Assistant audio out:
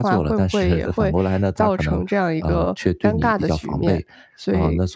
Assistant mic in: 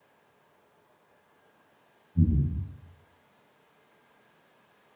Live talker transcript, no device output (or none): 嗯嗯。